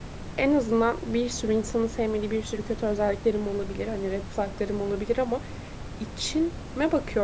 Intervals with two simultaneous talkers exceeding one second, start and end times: none

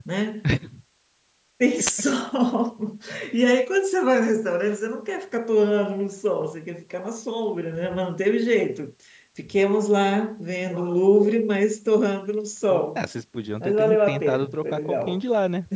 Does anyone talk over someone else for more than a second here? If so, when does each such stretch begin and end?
13.6-15.2

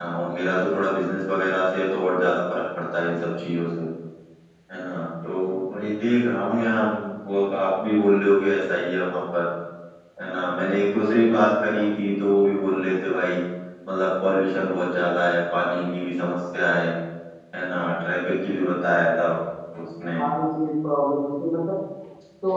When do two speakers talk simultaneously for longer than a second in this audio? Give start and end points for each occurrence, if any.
none

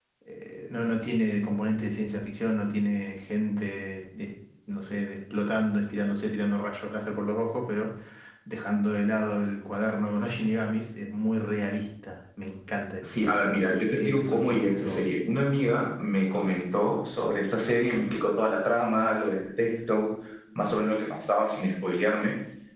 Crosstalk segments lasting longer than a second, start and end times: 13.0-15.0

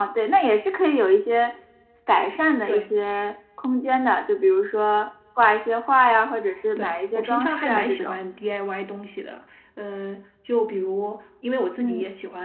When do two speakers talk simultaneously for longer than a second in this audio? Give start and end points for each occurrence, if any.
6.8-8.2

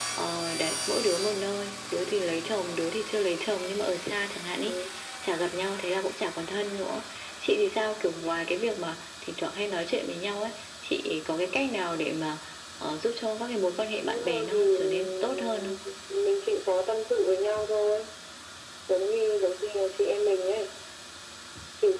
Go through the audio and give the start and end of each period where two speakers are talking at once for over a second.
14.1-15.7

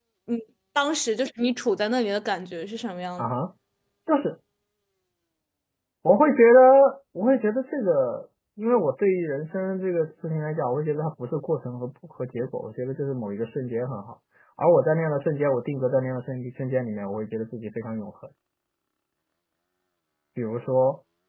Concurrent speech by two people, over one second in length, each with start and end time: none

